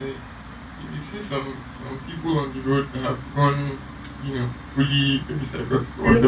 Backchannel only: Yes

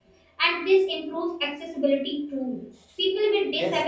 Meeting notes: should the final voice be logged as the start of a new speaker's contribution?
No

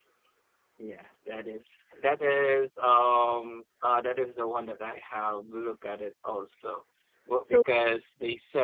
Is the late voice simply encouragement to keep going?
Yes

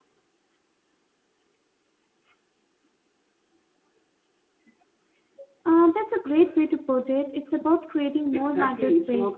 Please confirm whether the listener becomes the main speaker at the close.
Yes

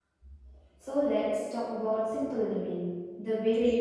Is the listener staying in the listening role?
No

